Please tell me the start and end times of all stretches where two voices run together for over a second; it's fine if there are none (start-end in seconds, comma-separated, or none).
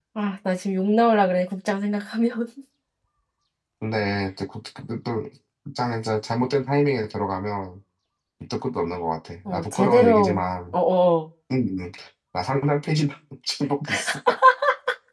9.5-10.7